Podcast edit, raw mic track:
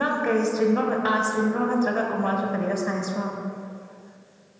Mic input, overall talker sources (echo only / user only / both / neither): echo only